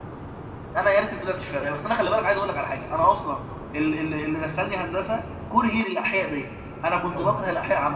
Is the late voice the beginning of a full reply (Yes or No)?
No